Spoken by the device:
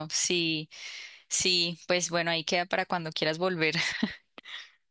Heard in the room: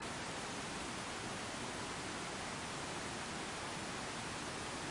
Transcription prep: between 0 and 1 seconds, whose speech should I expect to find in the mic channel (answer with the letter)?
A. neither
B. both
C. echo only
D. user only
A